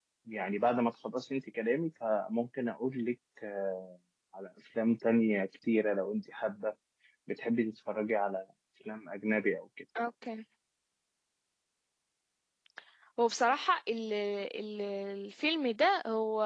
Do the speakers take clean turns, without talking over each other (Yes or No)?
Yes